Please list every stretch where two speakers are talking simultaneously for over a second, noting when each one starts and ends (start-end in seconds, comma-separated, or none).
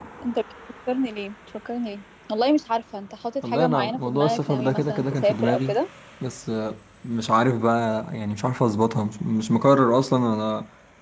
3.5-5.8